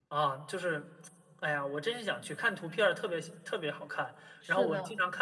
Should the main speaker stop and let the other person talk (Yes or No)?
No